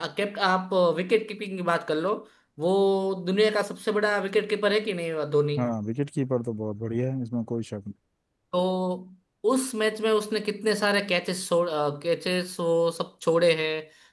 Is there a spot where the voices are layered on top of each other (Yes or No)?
No